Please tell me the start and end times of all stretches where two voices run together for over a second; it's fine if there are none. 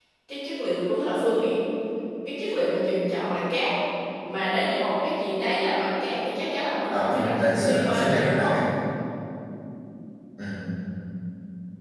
6.9-8.5

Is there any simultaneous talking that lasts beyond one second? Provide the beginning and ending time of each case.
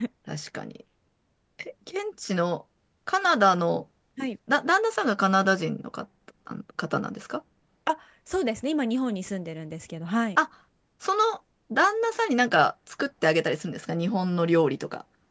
none

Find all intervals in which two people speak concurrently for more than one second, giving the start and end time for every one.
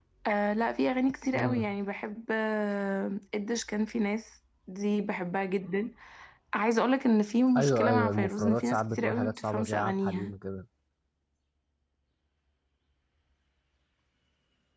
7.6-10.3

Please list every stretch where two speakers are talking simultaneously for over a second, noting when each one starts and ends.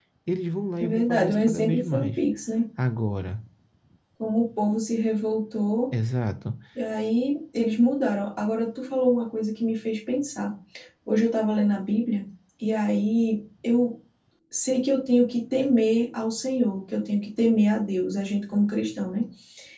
0.8-2.1

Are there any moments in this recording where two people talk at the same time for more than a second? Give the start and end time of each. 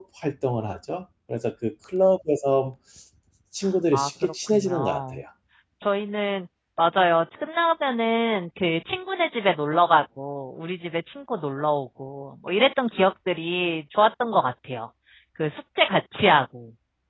3.9-5.2

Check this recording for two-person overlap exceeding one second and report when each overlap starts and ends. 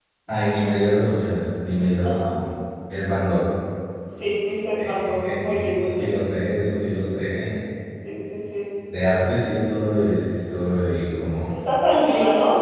4.8-6.2

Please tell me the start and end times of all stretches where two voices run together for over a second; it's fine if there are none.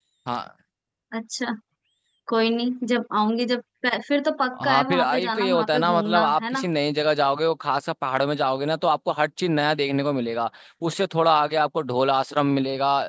4.6-6.7

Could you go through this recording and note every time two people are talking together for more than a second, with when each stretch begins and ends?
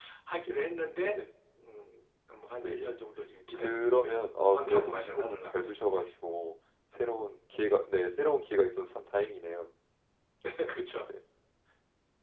3.5-6.0

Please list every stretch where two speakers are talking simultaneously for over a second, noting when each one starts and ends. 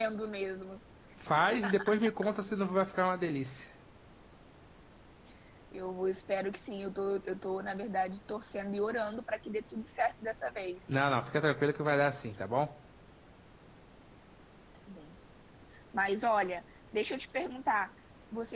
none

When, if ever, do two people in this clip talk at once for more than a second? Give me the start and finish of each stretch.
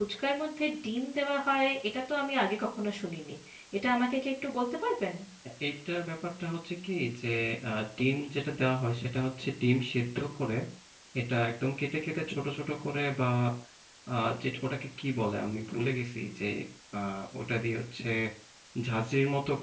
none

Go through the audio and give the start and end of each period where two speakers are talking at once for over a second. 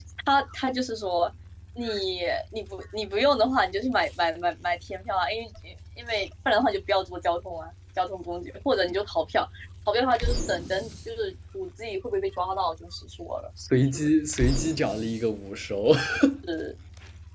none

